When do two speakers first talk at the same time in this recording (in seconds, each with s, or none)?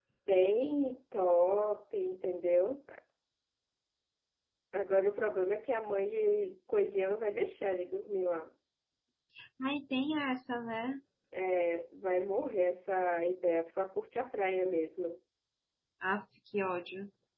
none